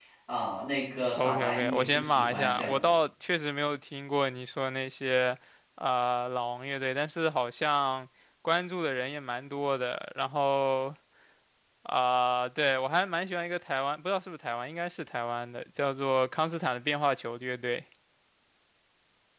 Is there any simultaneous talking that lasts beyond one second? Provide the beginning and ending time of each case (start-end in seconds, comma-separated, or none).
1.1-2.9